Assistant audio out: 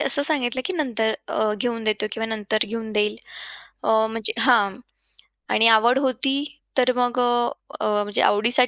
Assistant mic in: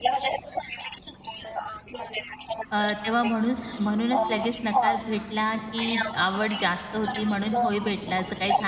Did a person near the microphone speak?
Yes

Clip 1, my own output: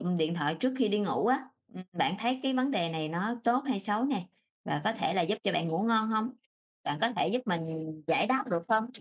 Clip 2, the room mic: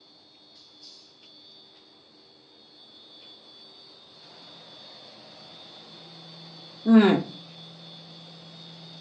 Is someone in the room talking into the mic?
Yes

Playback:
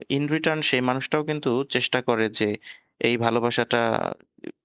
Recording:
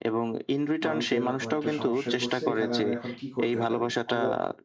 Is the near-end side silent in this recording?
No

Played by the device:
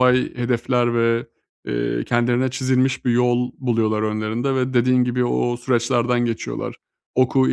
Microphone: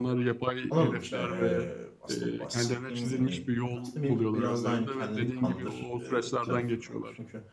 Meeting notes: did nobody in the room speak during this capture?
No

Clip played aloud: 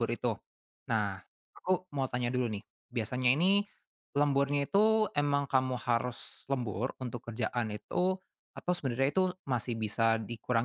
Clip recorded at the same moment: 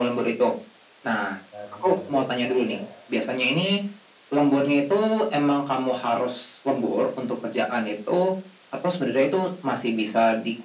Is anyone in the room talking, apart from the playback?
Yes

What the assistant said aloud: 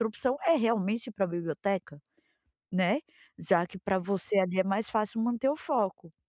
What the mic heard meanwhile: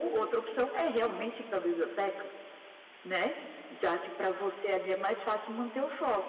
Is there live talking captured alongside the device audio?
No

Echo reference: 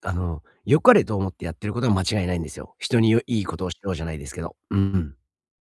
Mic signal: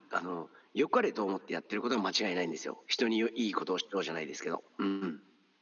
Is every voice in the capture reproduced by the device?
Yes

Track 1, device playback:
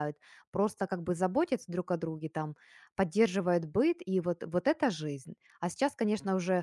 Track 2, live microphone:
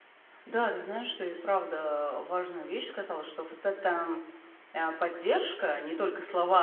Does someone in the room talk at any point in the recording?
Yes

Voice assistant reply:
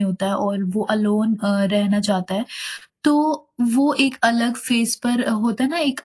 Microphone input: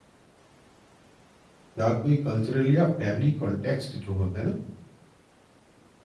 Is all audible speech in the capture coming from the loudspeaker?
No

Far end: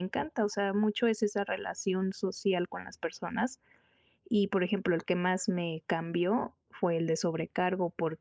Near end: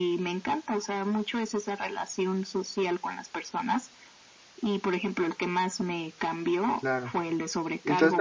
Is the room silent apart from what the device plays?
No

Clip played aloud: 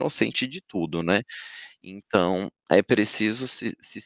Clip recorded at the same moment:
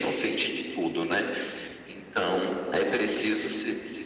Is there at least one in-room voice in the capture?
No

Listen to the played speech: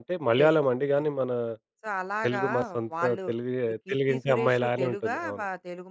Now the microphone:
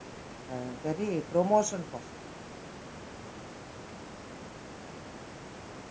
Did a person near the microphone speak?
Yes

